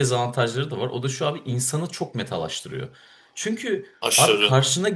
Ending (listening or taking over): listening